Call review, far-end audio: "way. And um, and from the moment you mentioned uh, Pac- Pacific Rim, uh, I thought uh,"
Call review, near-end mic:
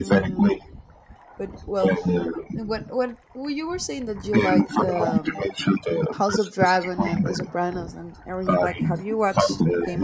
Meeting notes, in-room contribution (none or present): present